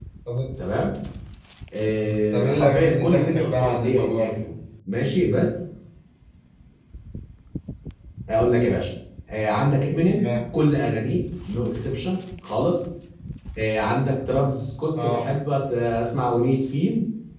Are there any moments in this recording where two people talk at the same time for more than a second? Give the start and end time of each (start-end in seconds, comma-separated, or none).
2.3-4.5